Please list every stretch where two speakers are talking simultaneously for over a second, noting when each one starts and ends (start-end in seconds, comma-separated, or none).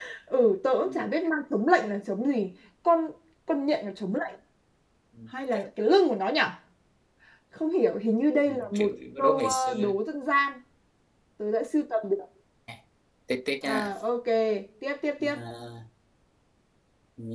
8.5-9.9